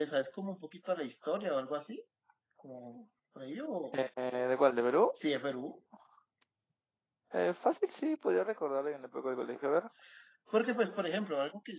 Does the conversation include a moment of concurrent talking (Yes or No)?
No